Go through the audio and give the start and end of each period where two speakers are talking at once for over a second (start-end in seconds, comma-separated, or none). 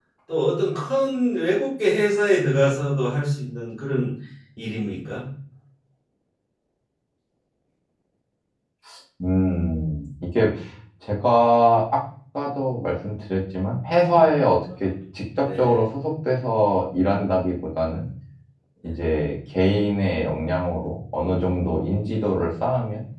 none